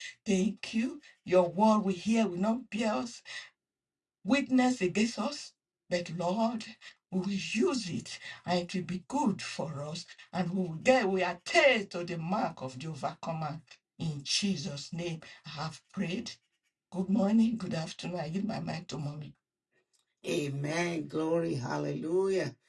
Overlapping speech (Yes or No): No